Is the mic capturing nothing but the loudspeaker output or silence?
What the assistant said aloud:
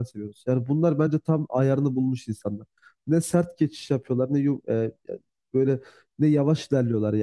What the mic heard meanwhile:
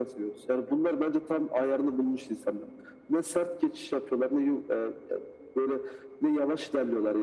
Yes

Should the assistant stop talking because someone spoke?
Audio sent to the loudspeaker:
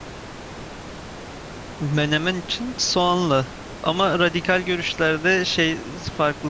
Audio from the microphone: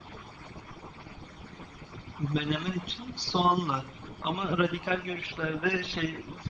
No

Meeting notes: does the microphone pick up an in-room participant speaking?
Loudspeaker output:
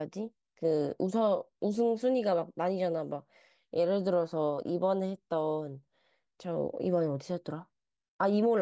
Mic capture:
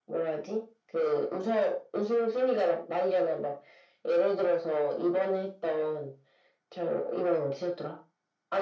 No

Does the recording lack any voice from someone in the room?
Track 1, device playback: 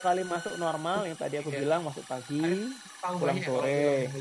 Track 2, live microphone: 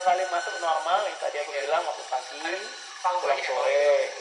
Yes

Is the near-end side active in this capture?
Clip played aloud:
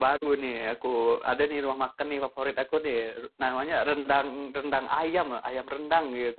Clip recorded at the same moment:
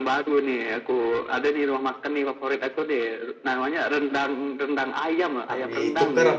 Yes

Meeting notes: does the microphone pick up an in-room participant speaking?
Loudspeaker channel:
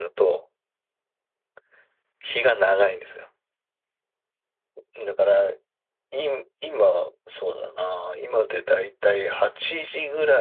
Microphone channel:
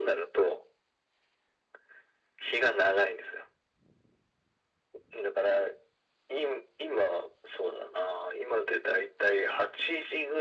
No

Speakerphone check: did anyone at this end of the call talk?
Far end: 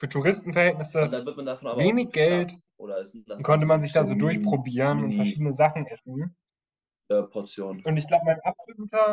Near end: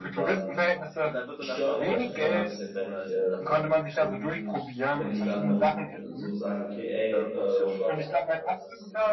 Yes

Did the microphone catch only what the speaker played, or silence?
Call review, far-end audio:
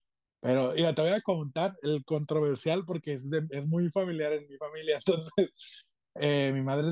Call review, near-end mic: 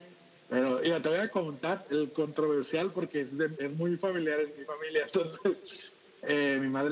Yes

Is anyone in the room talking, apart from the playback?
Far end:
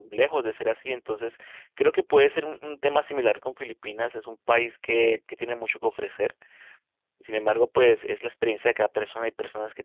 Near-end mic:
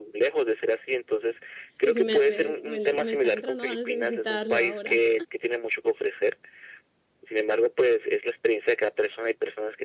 Yes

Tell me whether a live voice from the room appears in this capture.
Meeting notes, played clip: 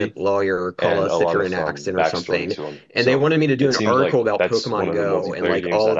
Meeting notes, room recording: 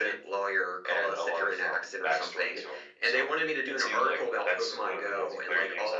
No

